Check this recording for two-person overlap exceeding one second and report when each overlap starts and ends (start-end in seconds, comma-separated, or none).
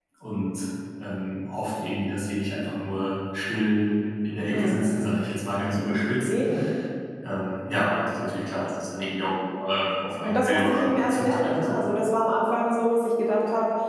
10.2-11.9